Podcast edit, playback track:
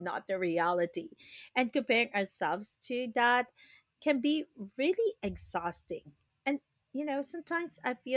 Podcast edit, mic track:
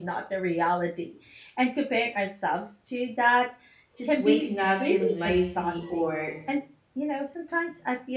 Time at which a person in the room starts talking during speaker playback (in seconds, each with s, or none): 4.0 s